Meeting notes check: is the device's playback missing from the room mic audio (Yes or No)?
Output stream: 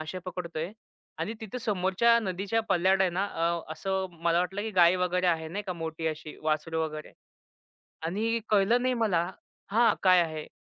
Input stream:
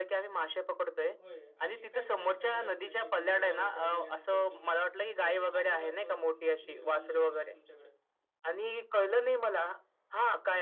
No